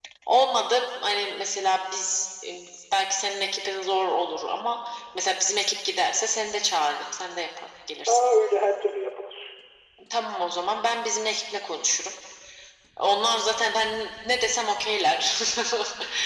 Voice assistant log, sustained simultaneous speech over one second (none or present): none